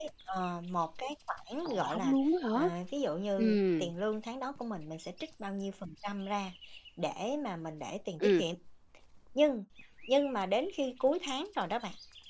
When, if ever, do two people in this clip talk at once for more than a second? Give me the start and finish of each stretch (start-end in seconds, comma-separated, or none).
none